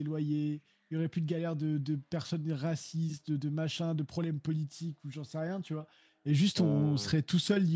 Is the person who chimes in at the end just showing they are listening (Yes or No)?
Yes